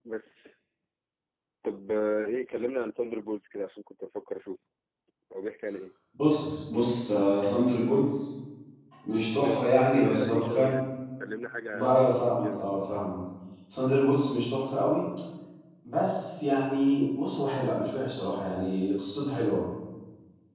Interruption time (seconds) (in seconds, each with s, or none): 9.4 s